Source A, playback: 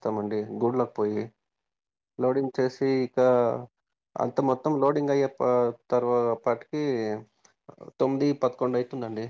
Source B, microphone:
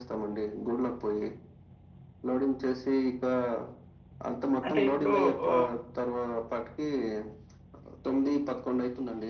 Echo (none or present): present